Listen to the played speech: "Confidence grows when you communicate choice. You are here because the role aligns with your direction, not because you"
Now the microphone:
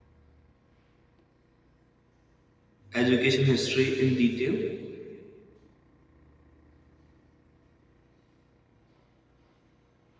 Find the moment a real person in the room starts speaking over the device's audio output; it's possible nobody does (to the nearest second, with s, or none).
3 s